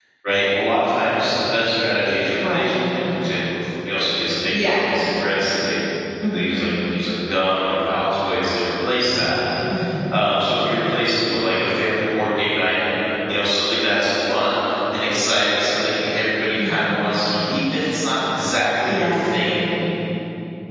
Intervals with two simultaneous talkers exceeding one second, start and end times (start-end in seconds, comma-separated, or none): none